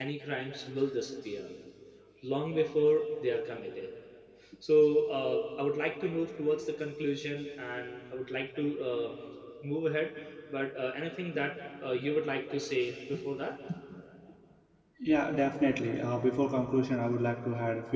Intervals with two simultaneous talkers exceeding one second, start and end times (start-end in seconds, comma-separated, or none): none